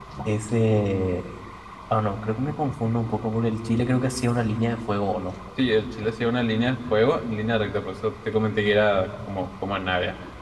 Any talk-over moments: No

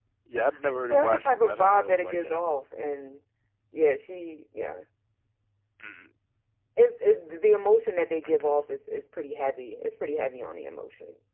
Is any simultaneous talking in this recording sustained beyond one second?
Yes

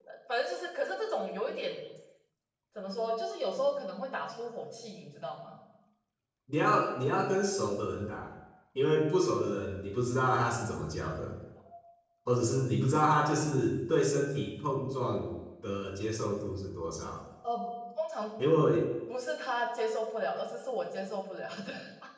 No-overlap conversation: Yes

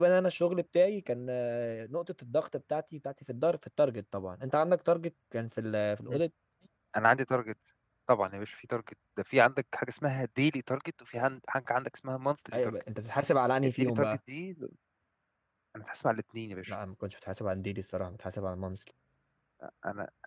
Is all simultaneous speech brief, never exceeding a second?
Yes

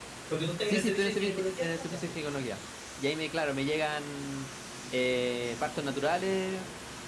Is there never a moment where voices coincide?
No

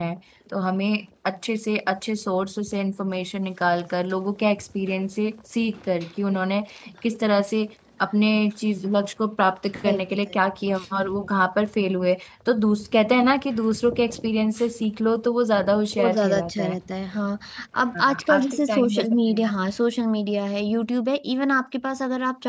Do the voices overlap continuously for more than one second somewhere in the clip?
Yes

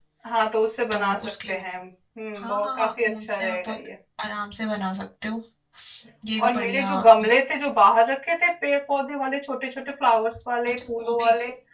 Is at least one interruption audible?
Yes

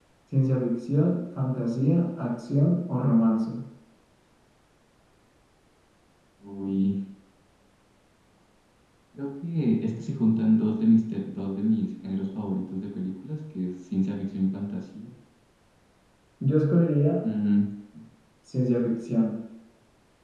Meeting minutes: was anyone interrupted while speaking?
No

